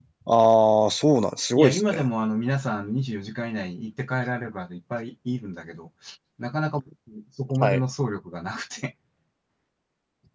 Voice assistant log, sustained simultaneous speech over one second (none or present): none